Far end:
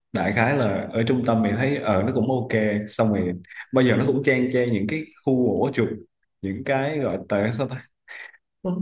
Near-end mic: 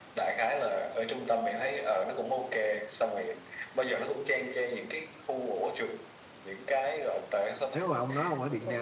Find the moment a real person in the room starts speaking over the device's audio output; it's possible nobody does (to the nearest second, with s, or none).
8 s